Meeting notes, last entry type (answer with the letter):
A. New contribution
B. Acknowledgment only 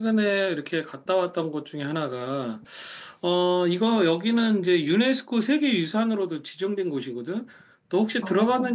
B